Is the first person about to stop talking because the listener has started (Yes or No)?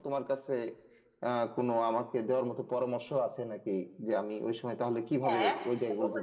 Yes